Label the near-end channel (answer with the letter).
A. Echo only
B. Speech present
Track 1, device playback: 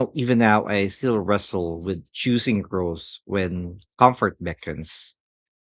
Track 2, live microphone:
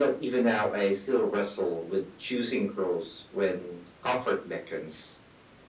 A